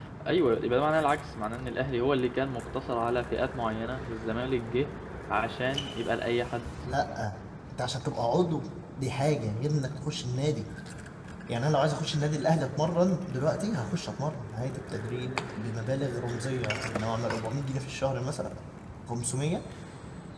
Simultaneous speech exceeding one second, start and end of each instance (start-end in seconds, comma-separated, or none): none